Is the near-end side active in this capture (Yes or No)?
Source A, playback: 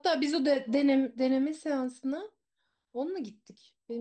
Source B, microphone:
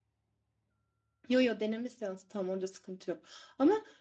Yes